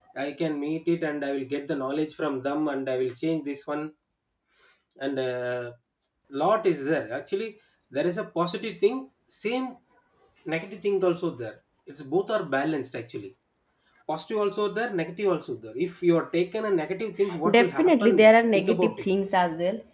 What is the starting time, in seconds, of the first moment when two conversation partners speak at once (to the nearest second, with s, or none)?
17 s